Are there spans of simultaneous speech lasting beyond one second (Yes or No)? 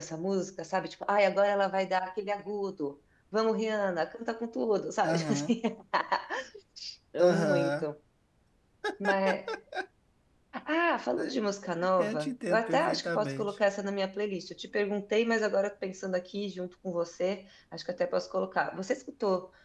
Yes